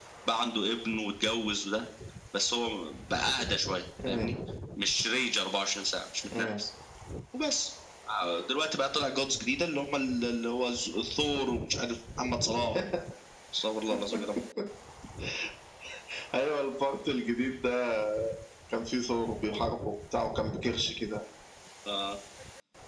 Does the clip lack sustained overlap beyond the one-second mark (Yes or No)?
Yes